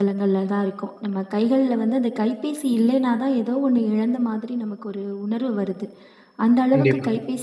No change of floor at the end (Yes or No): Yes